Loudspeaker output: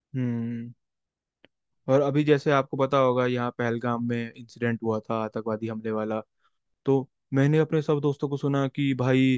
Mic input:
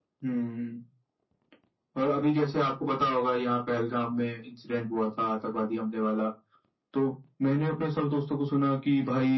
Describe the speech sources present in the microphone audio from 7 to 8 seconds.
echo only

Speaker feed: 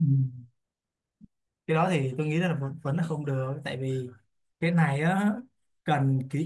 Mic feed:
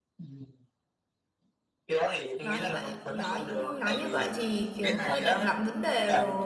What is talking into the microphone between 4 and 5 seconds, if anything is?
both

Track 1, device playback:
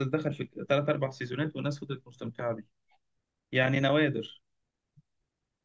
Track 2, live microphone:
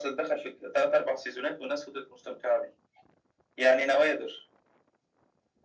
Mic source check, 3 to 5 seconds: echo only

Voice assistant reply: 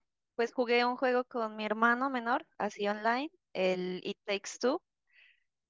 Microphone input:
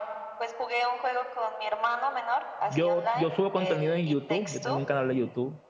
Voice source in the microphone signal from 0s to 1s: echo only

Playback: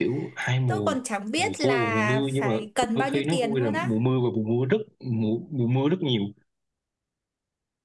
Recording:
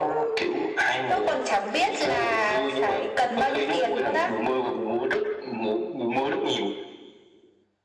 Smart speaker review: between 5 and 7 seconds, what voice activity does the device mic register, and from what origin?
echo only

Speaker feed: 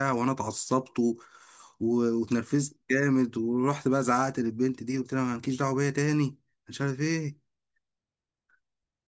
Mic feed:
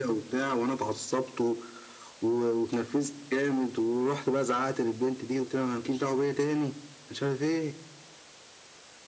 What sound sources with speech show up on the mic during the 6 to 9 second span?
echo only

